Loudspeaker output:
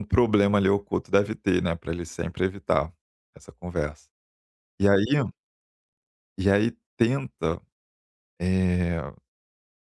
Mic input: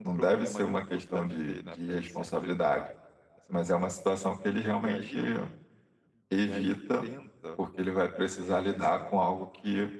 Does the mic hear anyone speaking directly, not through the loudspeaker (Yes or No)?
Yes